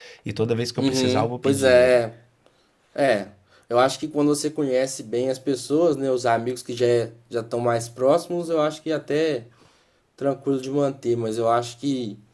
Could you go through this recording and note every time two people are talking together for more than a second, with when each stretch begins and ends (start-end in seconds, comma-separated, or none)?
0.8-2.0